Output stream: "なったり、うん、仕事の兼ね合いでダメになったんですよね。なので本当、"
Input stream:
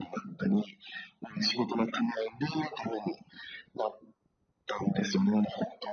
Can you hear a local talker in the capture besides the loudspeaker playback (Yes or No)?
No